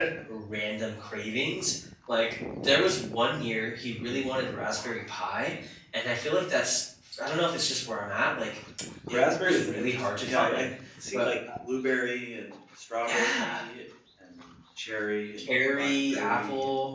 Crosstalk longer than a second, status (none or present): present